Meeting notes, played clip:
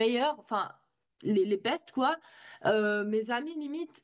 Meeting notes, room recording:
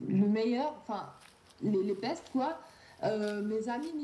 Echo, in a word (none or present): present